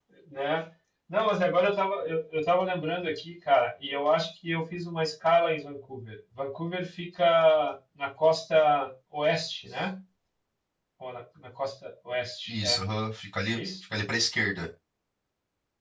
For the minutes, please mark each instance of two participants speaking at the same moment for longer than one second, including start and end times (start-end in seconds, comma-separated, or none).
none